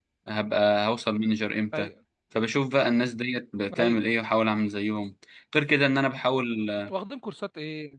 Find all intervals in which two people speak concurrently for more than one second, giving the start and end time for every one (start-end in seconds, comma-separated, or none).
none